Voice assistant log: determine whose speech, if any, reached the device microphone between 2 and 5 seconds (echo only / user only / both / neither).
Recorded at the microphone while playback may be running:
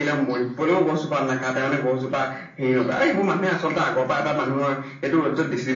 echo only